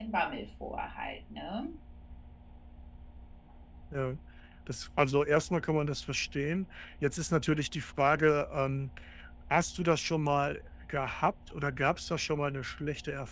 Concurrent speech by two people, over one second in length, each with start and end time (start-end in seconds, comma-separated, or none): none